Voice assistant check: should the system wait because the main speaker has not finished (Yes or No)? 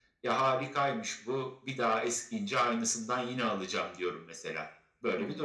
No